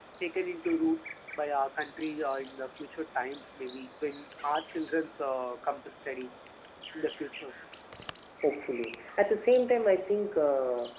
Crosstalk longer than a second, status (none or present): none